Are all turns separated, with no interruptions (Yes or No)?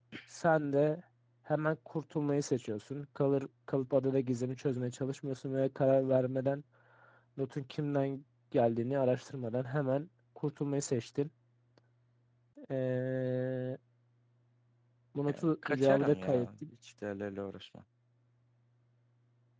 No